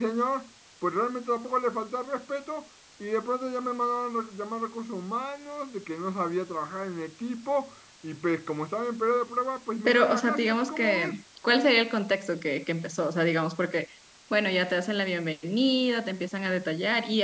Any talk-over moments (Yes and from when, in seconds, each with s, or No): Yes, from 9.8 s